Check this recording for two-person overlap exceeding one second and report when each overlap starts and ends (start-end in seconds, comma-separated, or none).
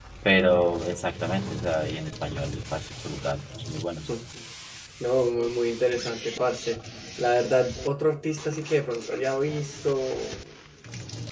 none